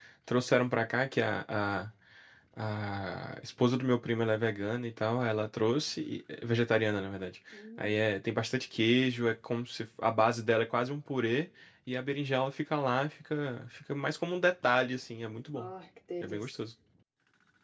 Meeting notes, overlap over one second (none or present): none